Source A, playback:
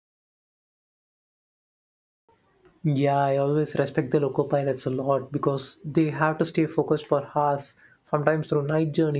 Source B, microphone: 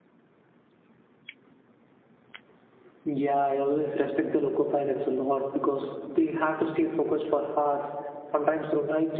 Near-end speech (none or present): none